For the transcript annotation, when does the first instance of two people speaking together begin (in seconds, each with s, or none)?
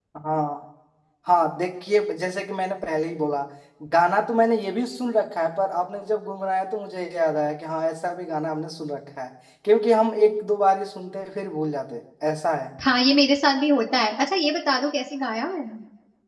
none